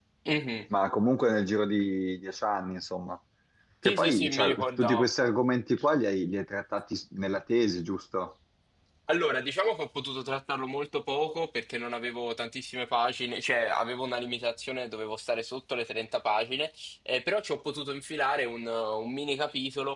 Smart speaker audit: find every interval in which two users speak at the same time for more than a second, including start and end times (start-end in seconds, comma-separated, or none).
3.8-5.1